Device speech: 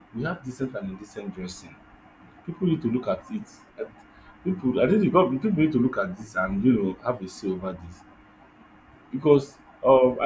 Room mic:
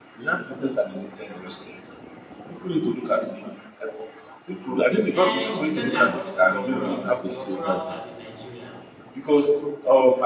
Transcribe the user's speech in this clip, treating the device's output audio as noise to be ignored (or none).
eh indecently according to your morals your morals as a nigerian